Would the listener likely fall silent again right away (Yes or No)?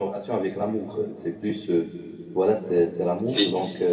Yes